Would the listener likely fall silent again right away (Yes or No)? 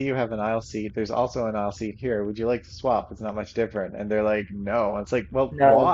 Yes